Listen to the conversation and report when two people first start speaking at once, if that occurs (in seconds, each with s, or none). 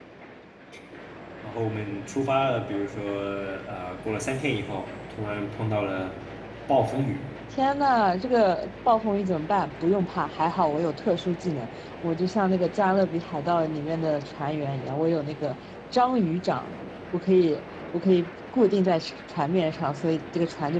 none